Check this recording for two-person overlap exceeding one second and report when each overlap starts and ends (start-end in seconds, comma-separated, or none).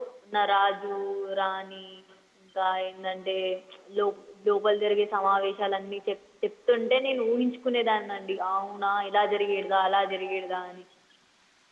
none